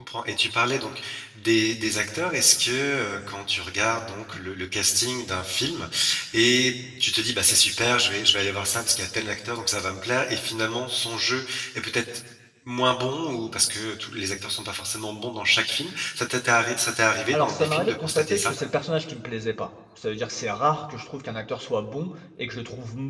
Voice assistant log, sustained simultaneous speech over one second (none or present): present